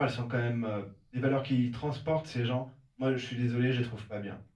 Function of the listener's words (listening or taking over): listening